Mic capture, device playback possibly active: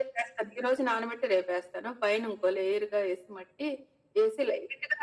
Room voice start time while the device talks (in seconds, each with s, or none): none